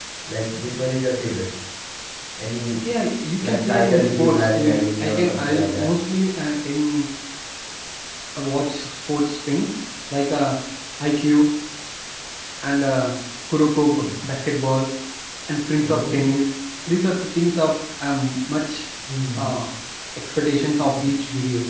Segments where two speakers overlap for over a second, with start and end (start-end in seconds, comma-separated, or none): 3.4-5.8